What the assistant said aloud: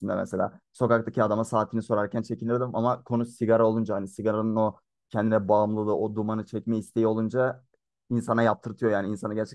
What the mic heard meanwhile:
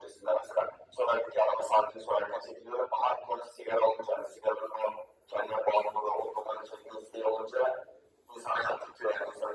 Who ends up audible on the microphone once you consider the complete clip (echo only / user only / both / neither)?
echo only